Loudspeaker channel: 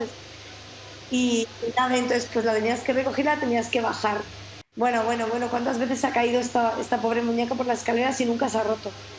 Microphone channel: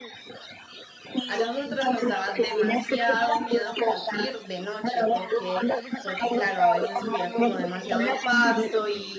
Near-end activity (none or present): present